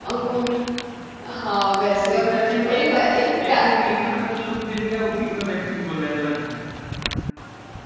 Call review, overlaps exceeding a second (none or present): none